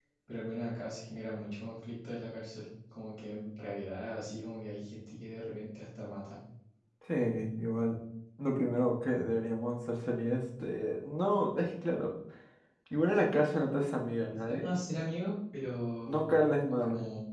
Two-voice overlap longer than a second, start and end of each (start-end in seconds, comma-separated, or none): none